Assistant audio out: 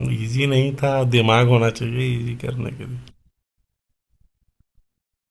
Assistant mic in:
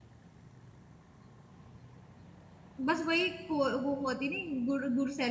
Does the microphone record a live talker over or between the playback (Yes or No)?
Yes